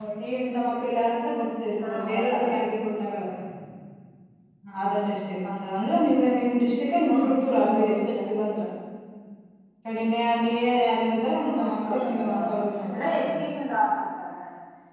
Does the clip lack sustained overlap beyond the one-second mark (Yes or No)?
No